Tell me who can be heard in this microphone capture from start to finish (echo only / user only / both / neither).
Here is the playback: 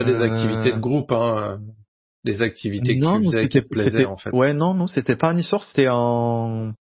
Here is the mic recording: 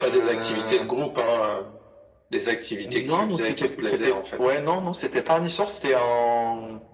echo only